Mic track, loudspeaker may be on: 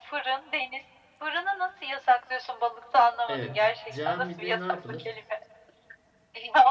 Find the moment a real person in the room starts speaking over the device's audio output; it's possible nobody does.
3 s

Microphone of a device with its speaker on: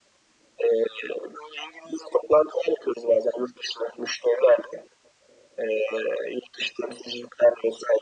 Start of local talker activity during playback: none

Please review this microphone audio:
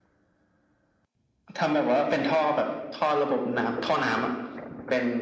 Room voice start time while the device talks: none

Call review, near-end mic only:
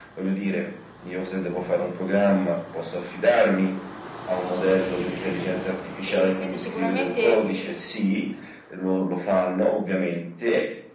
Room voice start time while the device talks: 6 s

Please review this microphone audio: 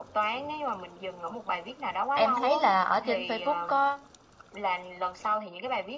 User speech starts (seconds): 2 s

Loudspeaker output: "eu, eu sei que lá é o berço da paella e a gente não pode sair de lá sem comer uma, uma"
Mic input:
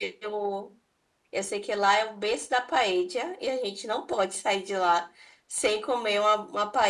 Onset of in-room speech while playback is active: none

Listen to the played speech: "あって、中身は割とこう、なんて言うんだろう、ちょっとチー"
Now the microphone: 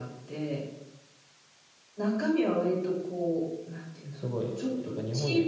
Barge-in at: 4 s

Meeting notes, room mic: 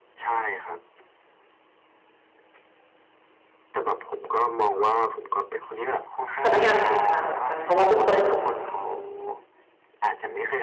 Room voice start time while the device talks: 6 s

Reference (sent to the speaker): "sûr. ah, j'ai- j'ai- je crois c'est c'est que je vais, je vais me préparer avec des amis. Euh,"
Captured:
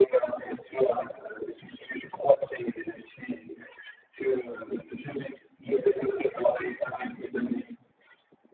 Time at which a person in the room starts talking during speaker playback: none

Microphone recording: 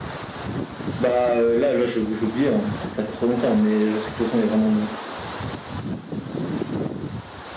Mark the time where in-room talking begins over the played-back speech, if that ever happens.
none

